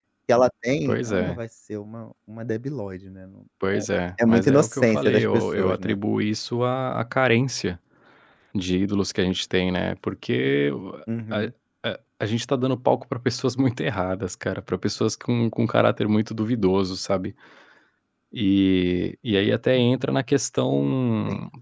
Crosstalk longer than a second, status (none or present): present